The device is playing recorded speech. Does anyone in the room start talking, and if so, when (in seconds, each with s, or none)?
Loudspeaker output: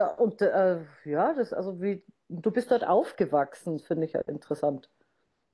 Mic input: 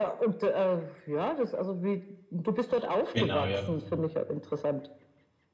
3.1 s